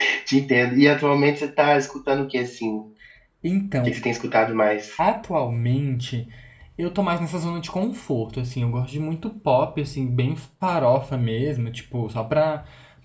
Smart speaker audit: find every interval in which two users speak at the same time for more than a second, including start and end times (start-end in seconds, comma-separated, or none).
none